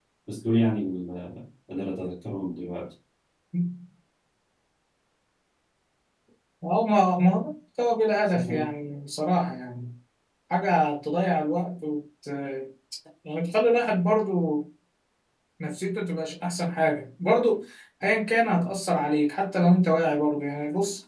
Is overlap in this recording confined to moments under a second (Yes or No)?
Yes